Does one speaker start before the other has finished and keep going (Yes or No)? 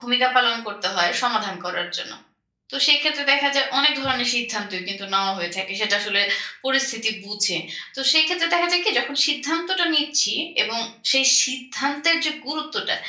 No